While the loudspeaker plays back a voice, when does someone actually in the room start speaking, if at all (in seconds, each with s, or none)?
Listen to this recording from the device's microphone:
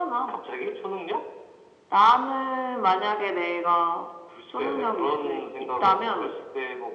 none